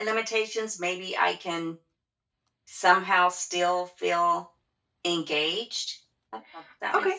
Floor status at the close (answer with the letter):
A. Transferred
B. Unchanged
A